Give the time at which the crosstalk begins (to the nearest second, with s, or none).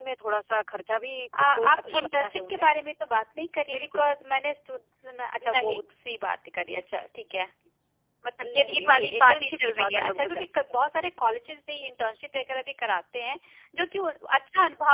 1 s